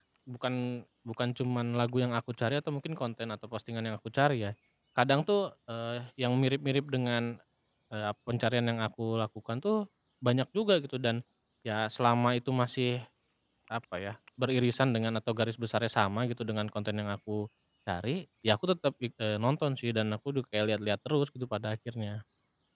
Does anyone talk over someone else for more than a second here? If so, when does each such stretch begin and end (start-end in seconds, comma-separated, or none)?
none